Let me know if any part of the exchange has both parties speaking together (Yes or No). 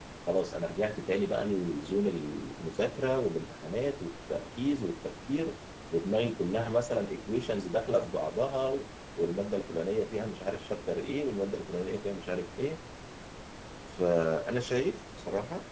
No